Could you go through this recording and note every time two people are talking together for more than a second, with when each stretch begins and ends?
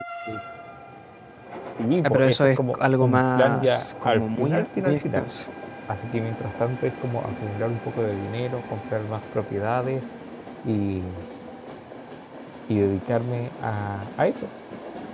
2.0-5.2

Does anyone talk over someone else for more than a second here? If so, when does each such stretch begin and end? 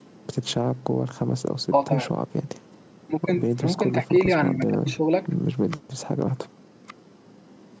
3.4-4.9

